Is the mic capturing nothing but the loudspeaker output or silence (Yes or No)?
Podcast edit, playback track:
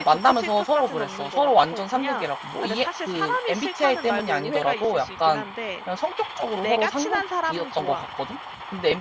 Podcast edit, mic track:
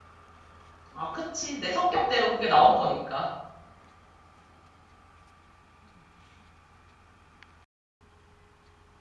No